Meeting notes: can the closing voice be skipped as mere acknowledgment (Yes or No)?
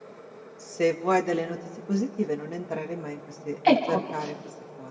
Yes